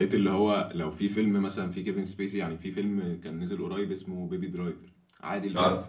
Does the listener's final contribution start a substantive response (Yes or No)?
No